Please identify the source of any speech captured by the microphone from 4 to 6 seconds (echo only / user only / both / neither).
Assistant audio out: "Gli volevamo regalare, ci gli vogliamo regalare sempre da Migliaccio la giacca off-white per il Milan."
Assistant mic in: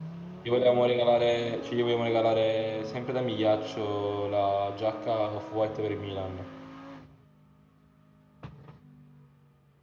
echo only